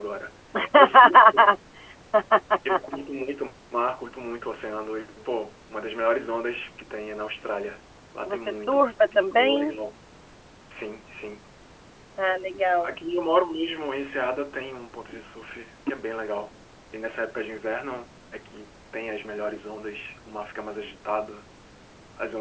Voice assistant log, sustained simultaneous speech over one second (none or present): present